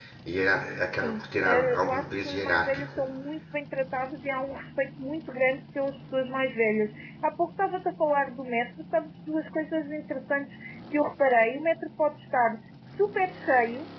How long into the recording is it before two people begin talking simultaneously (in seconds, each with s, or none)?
1.0 s